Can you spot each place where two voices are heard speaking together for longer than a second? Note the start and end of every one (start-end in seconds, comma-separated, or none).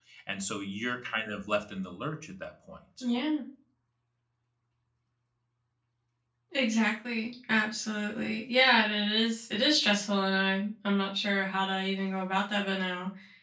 none